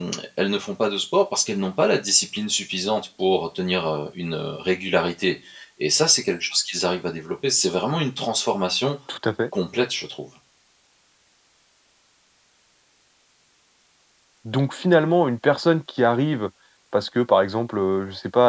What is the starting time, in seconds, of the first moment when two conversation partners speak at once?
none

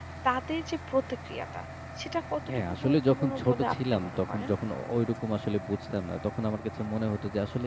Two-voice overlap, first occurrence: 2.5 s

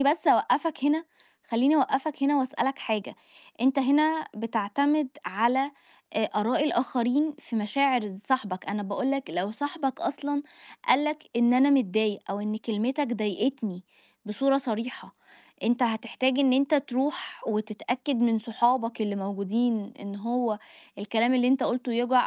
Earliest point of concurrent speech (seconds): none

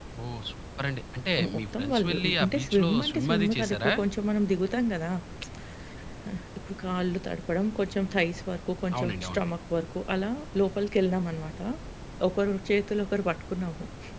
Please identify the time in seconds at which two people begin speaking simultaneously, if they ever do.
1.6 s

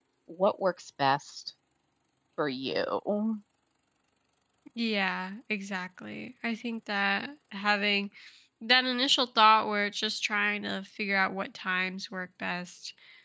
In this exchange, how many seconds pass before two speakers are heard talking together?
none

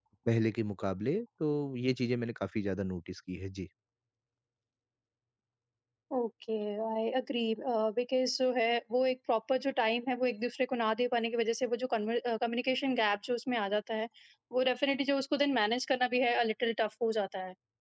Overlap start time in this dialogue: none

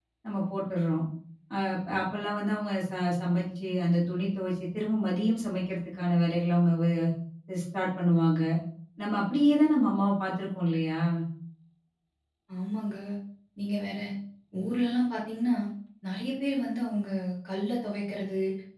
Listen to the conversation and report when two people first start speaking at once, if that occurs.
none

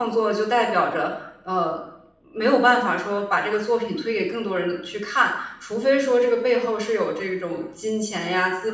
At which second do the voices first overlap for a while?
none

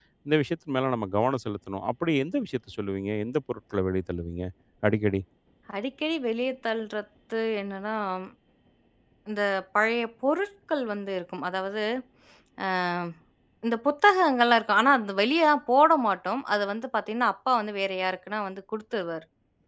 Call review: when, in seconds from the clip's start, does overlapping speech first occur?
none

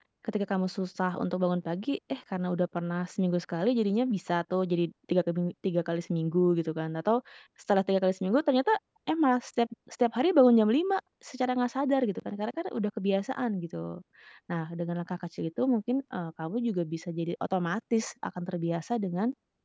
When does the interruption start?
none

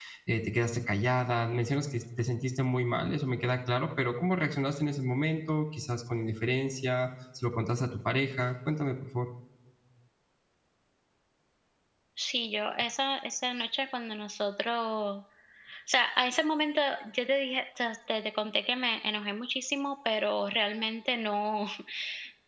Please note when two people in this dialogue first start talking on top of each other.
none

